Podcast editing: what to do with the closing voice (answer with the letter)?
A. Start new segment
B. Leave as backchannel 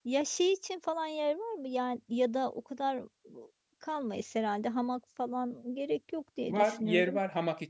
A